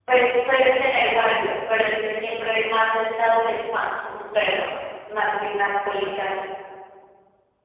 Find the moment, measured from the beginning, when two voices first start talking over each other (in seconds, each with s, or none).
none